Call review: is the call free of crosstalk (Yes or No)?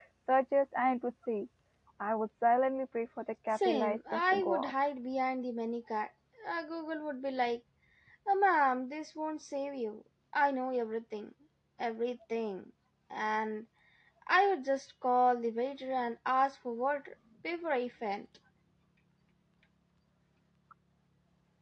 No